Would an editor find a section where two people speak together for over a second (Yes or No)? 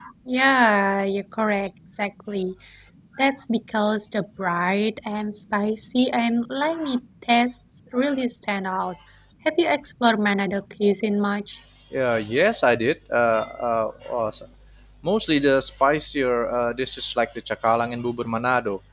No